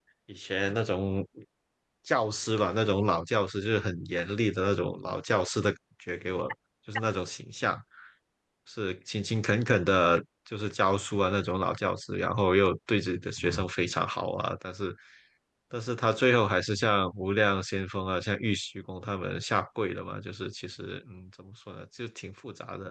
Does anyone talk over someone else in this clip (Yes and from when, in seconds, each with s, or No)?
No